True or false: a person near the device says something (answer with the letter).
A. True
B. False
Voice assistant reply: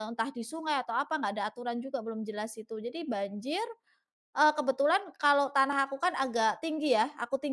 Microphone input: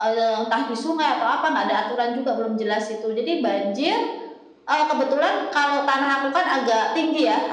B